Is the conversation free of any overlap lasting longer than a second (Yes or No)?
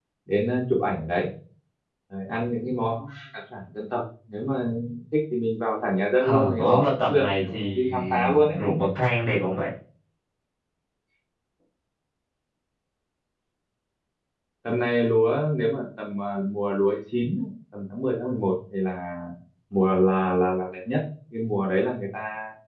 No